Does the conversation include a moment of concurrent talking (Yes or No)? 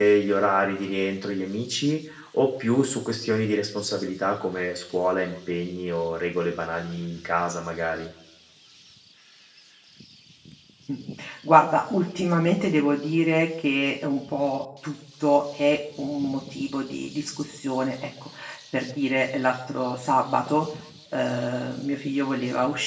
No